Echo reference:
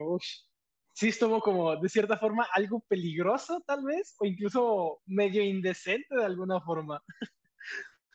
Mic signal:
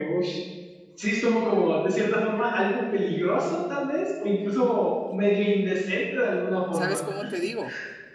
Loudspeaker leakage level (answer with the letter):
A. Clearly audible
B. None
A